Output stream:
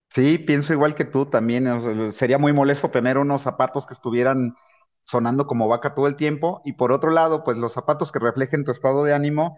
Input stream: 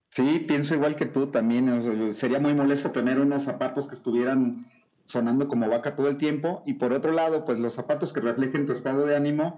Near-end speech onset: none

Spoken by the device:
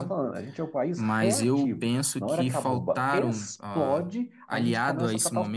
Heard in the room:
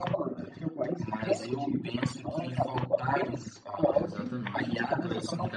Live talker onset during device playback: 4 s

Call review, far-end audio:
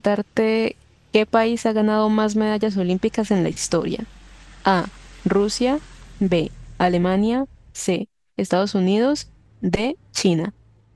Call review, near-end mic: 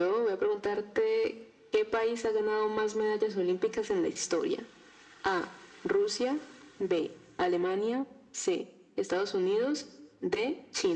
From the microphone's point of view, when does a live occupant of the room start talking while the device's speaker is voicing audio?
none

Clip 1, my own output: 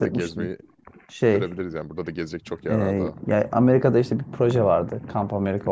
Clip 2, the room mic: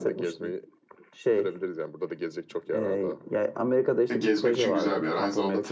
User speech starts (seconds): 4 s

